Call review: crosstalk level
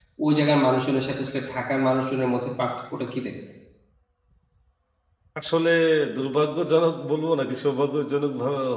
none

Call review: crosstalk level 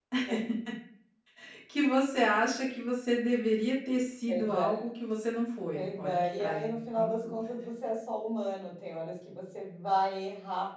present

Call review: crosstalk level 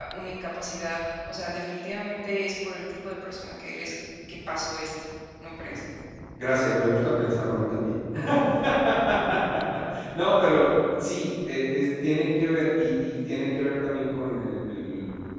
none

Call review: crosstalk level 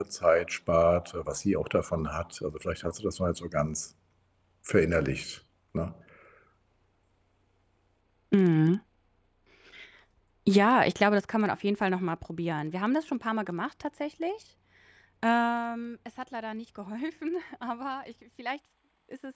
none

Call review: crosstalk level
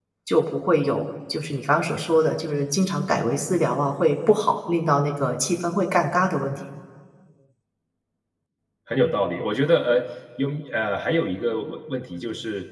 none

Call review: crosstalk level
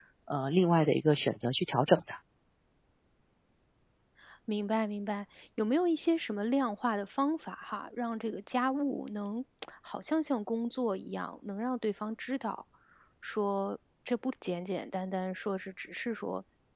none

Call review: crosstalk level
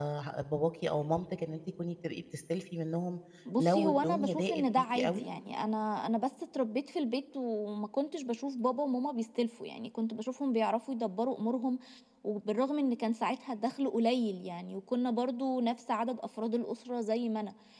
present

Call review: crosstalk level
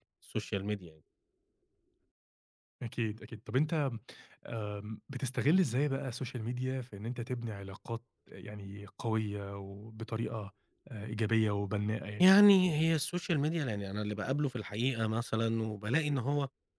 none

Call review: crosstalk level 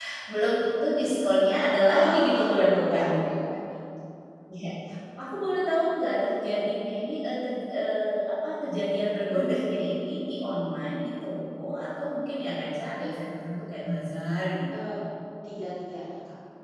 present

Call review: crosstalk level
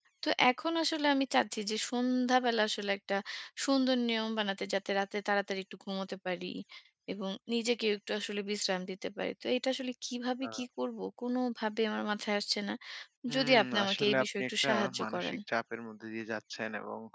present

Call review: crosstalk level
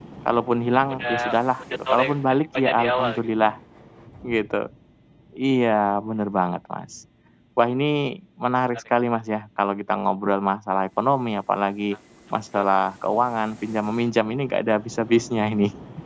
present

